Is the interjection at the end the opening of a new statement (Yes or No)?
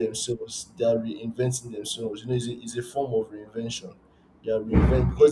No